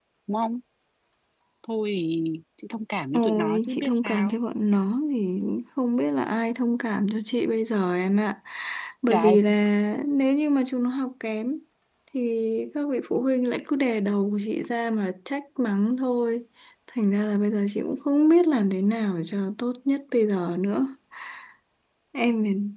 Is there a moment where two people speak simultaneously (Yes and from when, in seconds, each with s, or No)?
Yes, from 3.1 s